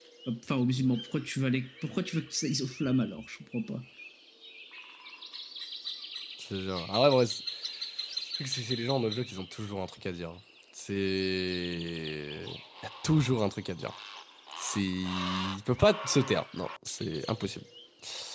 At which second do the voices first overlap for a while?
none

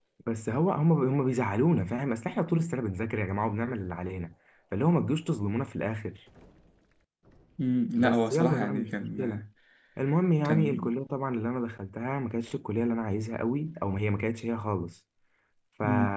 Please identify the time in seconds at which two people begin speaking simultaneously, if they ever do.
8.0 s

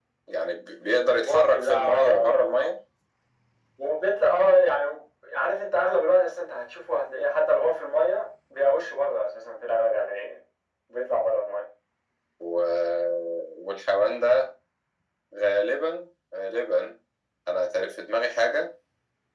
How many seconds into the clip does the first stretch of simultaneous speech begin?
1.2 s

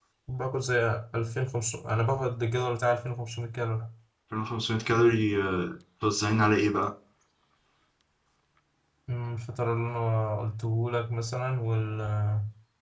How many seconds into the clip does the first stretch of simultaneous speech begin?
none

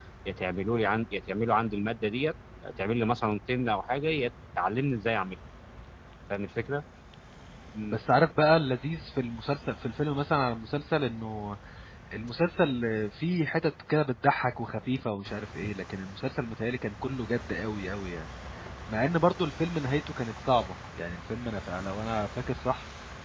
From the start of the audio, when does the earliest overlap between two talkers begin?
none

